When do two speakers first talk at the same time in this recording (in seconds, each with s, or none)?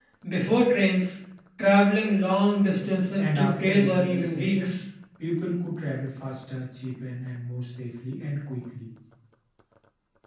3.2 s